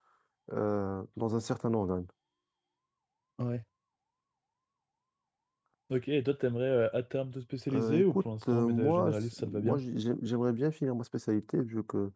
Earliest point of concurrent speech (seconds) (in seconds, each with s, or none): 7.7 s